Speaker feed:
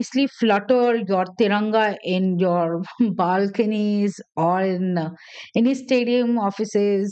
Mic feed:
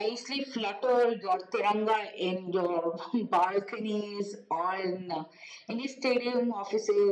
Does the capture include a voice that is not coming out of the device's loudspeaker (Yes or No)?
No